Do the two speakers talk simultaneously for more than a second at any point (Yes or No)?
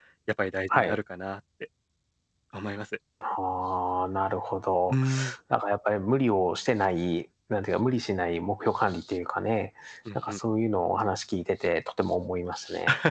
No